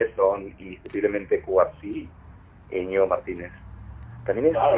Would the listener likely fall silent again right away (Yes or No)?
No